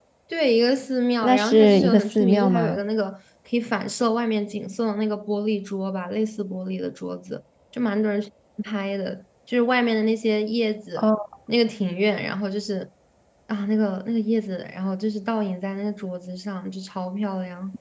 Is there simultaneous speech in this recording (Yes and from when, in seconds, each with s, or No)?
Yes, from 1.2 s